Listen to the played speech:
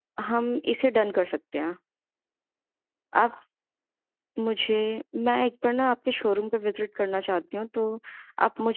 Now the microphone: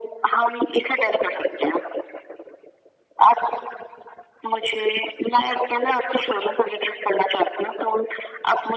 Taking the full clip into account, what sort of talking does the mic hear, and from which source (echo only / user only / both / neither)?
echo only